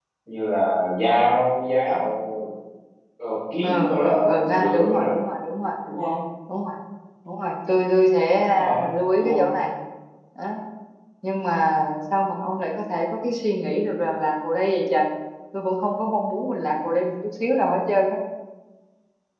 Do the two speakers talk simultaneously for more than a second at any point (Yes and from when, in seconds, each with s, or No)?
Yes, from 3.6 s